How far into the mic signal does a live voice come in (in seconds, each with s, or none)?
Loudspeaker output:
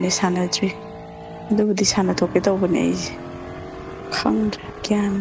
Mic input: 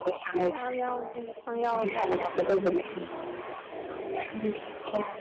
0.5 s